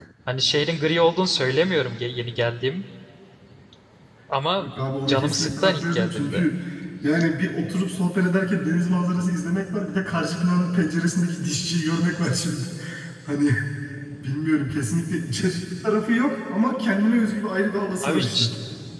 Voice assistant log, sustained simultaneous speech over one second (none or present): present